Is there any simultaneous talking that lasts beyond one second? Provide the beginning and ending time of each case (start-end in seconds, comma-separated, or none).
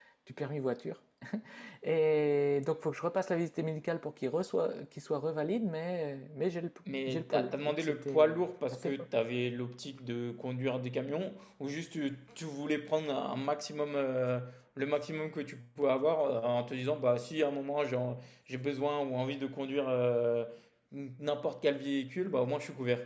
7.1-8.9